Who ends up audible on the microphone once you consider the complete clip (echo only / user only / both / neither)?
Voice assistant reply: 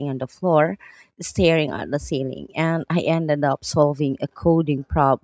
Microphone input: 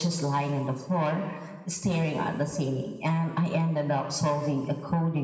echo only